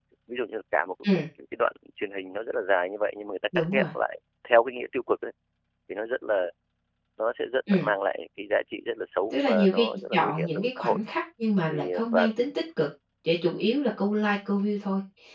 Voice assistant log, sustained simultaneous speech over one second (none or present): present